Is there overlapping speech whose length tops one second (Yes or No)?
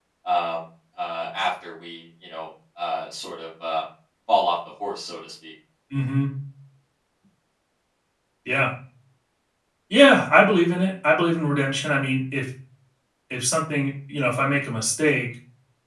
No